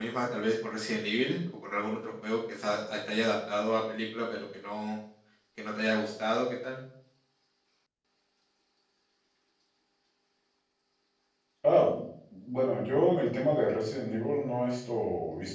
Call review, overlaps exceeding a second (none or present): none